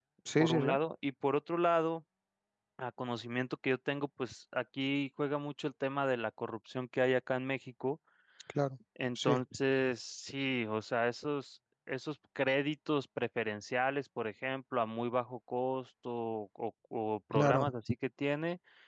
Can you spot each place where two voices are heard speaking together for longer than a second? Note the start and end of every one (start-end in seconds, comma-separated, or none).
none